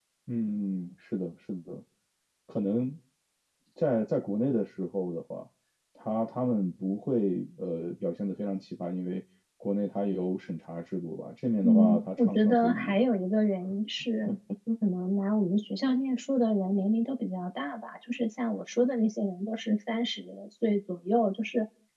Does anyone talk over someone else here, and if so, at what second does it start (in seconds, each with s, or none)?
11.6 s